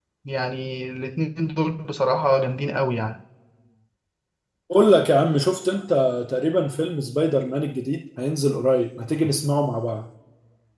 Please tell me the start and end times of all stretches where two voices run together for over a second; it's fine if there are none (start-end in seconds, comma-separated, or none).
none